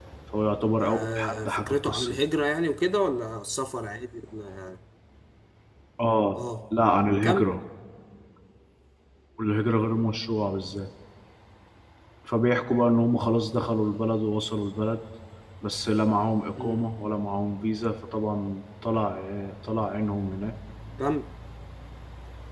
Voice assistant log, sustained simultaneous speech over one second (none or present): present